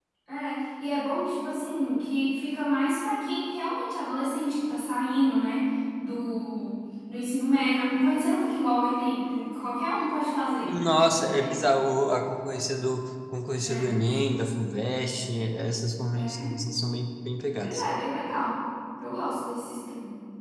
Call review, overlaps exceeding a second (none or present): none